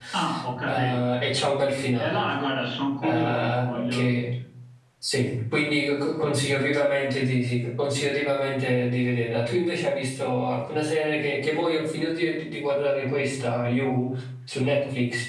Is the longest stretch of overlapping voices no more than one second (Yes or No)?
No